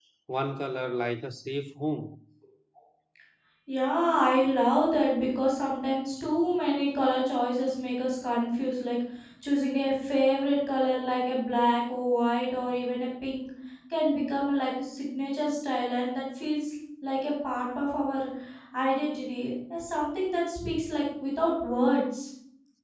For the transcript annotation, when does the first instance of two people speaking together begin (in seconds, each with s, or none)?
none